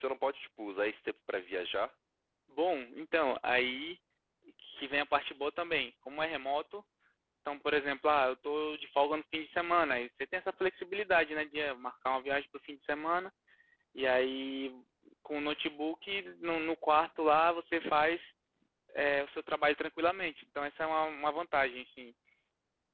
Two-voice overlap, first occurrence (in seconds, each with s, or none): none